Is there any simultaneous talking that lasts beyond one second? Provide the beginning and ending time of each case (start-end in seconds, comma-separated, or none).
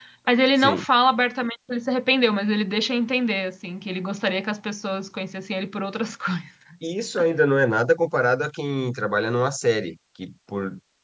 none